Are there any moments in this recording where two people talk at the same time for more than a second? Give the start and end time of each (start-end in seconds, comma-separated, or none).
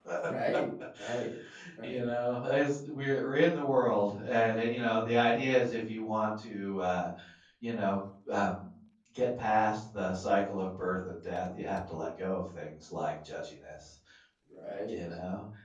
none